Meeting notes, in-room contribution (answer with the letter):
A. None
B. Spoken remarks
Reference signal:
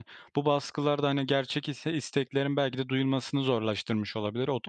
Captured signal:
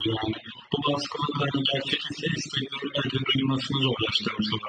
A